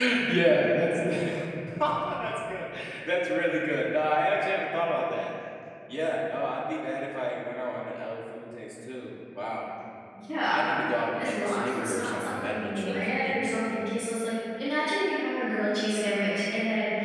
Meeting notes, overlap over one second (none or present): present